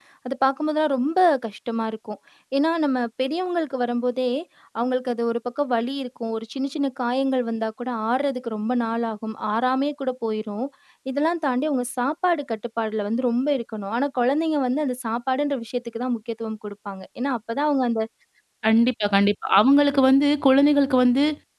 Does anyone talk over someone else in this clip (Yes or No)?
No